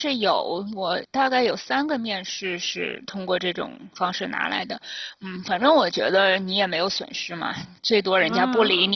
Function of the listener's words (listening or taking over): listening